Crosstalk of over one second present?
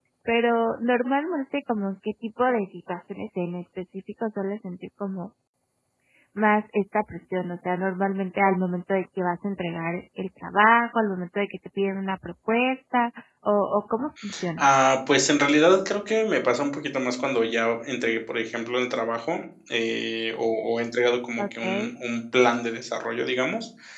No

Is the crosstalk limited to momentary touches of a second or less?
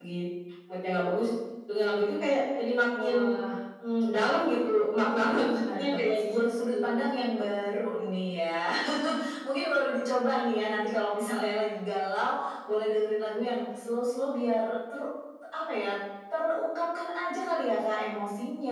No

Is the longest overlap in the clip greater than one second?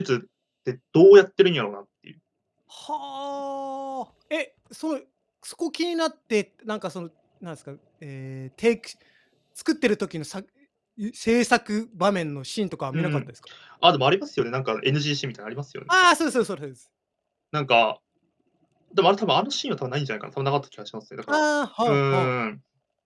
No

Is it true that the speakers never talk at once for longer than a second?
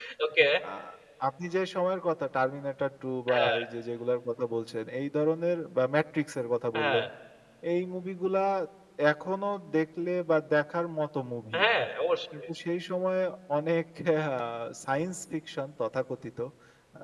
Yes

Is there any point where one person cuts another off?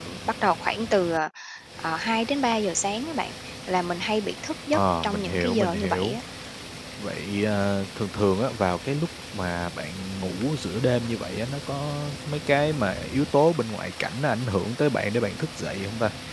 Yes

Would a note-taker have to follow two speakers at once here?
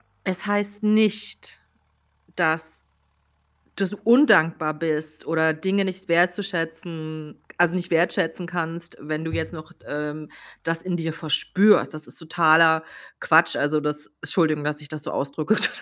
No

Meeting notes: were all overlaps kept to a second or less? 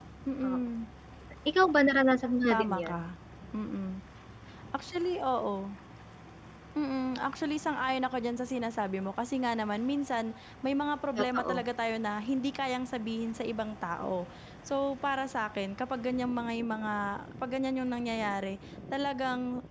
Yes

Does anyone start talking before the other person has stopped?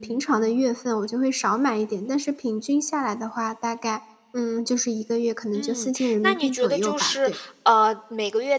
Yes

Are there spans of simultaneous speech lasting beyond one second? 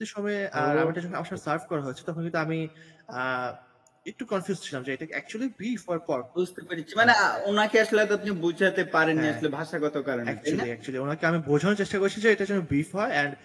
No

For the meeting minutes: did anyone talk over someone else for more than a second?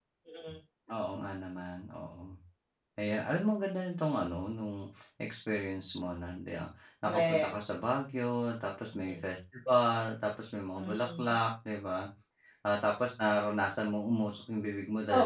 No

